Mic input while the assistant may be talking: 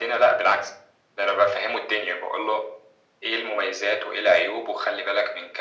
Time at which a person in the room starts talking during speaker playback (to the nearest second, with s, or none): none